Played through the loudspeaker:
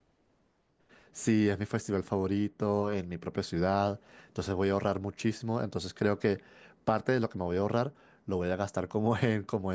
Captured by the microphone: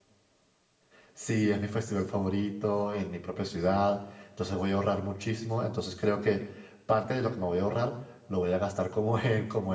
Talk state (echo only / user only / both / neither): echo only